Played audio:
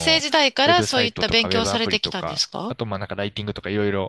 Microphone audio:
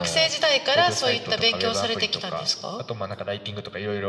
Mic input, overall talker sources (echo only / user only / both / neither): echo only